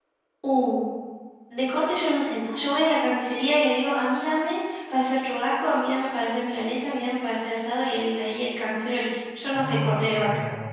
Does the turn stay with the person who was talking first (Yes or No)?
No